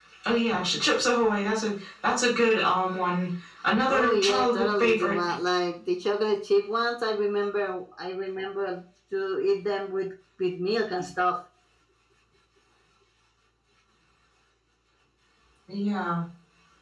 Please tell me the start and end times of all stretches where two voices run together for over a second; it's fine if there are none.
3.9-5.2

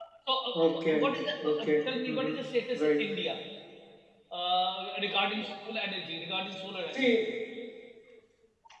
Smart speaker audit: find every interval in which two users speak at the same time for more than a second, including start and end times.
0.5-2.4

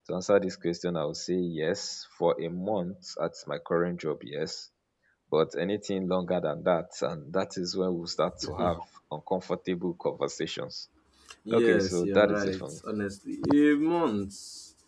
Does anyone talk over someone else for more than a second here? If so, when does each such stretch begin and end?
11.5-12.8

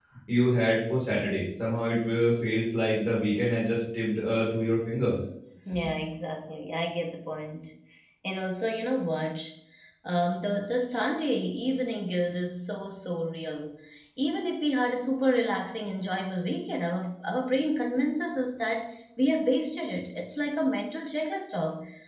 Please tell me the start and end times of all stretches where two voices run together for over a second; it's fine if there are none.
none

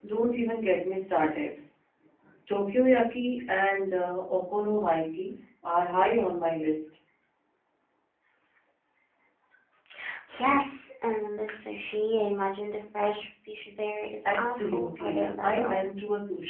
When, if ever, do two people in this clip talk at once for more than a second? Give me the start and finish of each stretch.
14.2-15.8

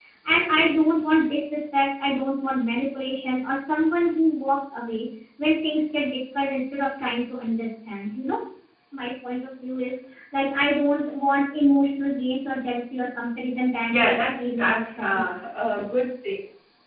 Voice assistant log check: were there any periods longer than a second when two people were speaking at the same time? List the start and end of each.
13.9-15.3

